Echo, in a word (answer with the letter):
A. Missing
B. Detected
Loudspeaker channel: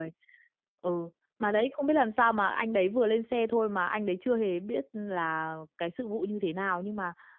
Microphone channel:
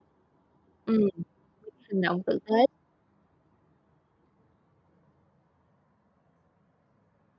A